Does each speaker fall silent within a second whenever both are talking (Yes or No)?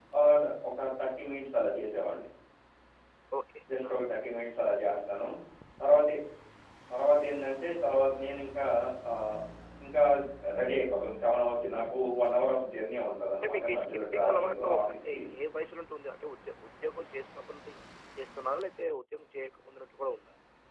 No